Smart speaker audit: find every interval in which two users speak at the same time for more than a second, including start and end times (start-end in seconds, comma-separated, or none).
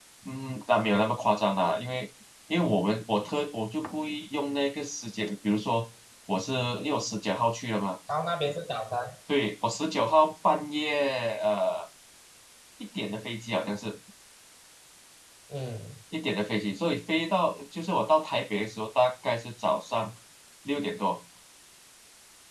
none